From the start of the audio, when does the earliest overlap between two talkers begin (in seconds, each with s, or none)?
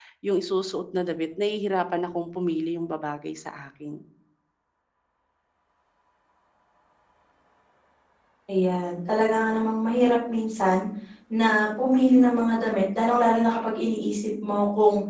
none